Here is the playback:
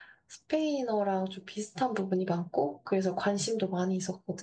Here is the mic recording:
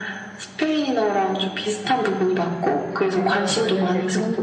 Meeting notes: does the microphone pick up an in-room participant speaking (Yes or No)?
Yes